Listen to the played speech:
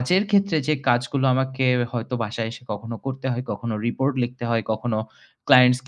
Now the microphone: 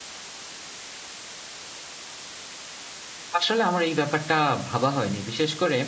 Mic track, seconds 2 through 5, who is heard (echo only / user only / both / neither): user only